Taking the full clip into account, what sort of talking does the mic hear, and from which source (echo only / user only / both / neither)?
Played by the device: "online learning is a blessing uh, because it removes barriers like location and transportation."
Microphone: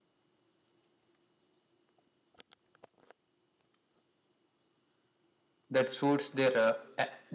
user only